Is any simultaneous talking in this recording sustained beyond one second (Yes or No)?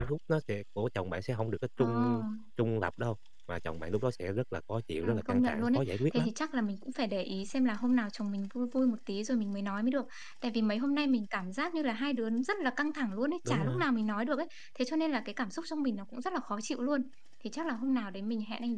Yes